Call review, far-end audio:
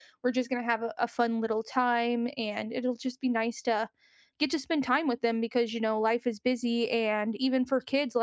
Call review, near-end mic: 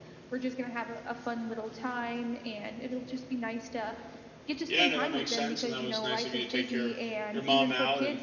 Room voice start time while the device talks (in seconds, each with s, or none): 4.6 s